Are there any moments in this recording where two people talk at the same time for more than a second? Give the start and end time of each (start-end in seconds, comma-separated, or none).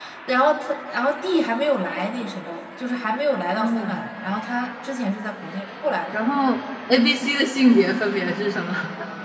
none